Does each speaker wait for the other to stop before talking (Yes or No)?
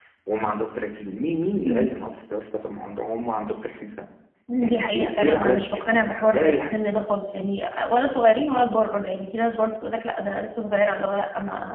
No